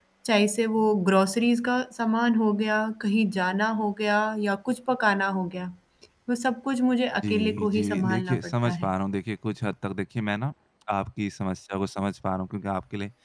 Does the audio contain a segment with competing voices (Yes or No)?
Yes